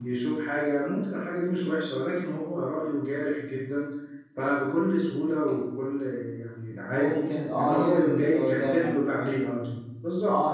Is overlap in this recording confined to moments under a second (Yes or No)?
No